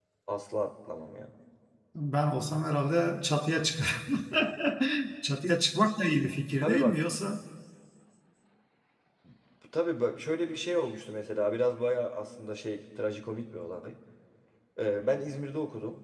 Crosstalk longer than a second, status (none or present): none